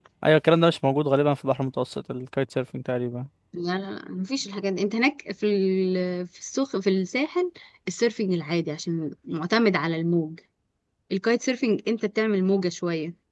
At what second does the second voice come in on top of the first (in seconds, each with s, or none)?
none